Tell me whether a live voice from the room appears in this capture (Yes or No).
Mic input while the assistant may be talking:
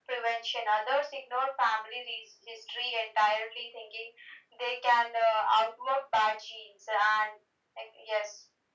No